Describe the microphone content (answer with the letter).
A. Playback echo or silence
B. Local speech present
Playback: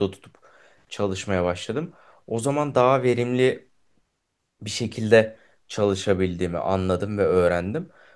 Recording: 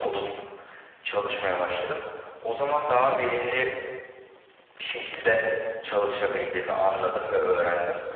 A